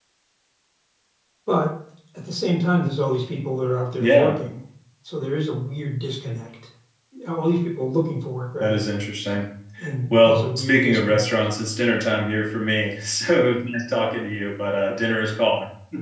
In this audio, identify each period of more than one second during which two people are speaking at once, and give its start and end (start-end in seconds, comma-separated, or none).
10.1-11.3